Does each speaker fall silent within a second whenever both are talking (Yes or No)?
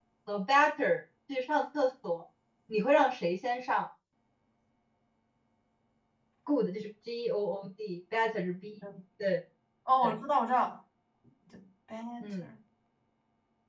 Yes